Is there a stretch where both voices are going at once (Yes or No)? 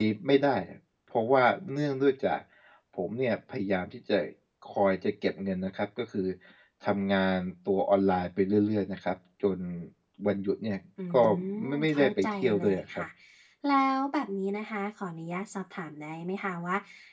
Yes